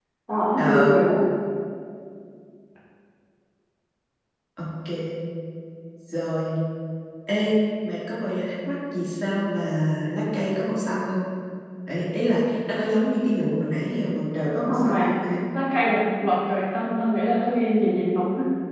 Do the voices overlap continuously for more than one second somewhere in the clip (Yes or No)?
No